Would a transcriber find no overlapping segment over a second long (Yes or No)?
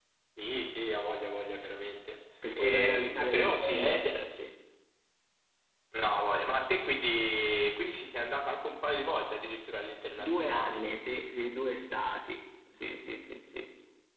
No